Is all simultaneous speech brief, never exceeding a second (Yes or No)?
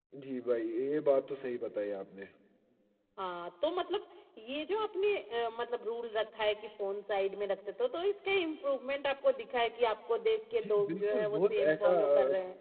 No